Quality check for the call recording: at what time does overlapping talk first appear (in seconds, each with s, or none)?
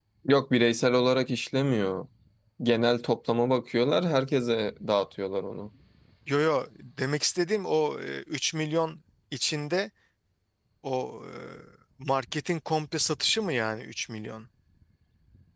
none